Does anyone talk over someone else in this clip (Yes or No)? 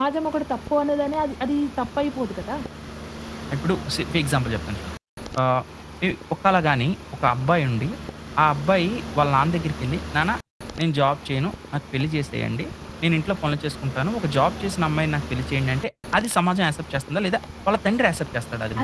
No